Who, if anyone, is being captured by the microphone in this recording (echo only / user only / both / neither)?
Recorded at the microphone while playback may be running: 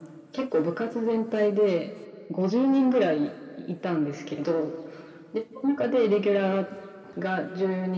echo only